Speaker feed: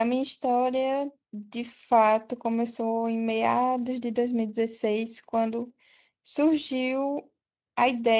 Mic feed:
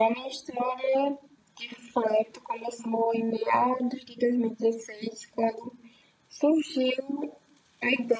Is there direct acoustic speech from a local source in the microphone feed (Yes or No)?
No